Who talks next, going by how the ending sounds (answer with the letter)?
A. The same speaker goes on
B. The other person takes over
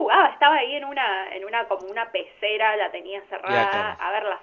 A